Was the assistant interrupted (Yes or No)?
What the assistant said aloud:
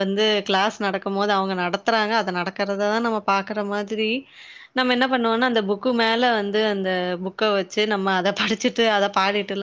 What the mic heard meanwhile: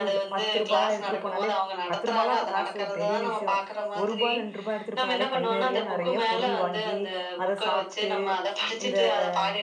Yes